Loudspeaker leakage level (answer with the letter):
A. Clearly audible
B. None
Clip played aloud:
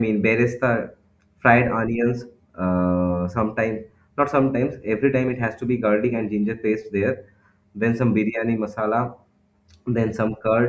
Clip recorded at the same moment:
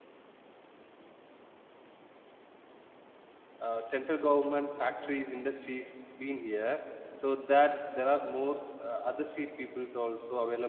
B